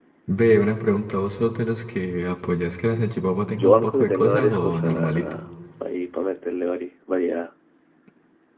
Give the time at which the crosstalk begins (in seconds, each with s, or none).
3.6 s